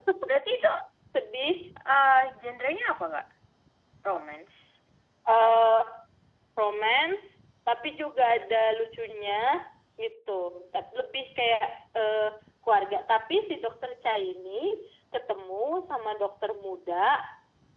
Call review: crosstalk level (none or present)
none